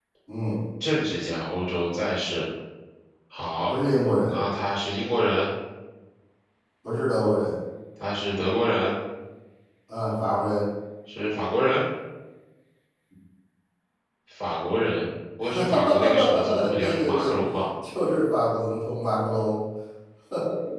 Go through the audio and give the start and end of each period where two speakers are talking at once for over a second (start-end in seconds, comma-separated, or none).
15.4-17.4